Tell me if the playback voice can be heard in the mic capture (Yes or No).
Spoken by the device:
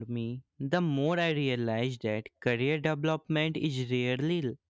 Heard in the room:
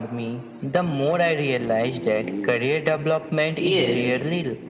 Yes